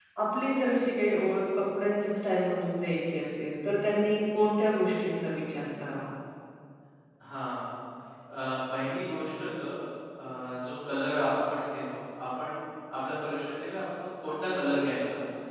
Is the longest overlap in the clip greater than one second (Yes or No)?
No